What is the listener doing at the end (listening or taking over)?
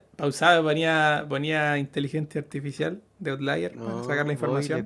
taking over